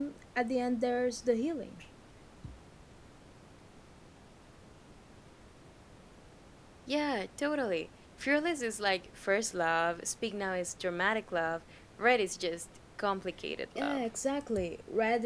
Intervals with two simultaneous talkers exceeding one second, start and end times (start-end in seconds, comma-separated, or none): none